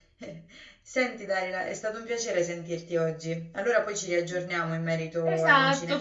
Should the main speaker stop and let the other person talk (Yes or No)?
Yes